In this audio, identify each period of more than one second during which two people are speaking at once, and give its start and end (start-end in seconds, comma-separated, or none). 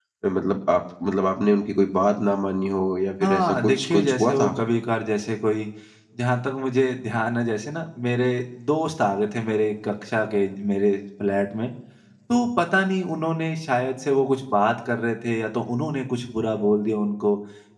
3.2-4.5